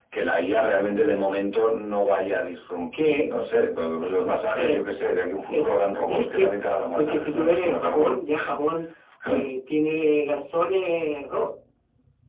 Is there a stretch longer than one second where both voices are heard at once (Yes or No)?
Yes